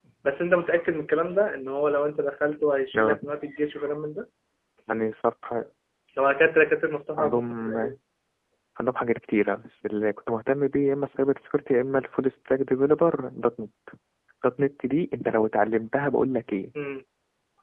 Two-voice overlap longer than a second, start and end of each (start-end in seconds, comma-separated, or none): none